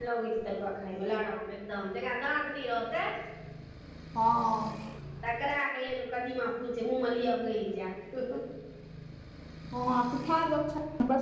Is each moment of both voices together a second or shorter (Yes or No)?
Yes